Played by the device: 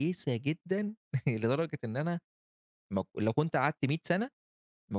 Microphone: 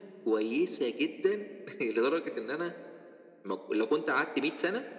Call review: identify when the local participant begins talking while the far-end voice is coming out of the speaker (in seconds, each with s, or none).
none